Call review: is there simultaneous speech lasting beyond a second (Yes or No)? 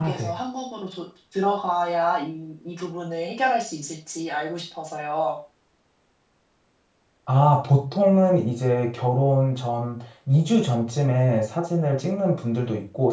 No